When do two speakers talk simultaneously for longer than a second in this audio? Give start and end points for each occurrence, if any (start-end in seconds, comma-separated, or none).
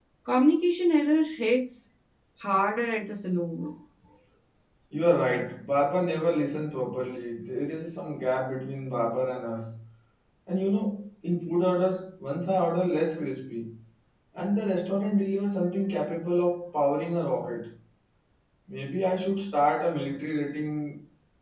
none